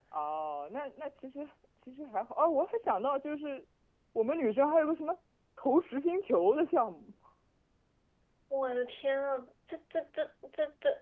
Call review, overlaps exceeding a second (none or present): none